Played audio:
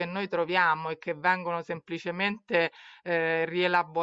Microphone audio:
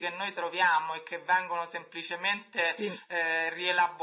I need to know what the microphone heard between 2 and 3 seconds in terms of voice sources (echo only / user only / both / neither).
both